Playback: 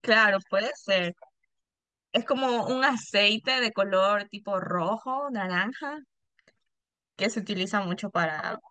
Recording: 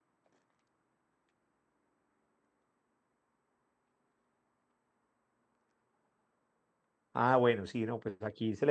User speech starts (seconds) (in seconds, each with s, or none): 7.1 s